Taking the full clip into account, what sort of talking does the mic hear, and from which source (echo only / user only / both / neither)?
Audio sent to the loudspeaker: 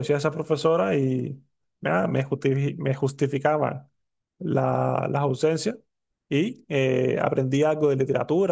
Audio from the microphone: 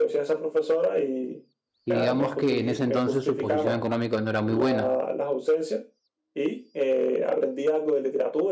both